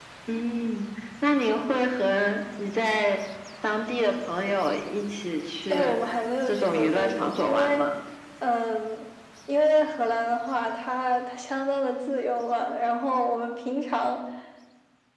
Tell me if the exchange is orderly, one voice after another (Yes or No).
No